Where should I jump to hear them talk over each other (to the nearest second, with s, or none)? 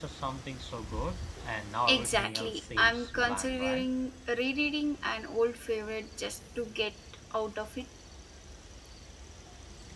2 s